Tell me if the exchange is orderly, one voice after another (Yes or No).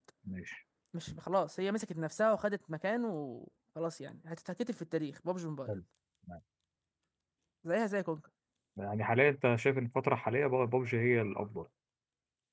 Yes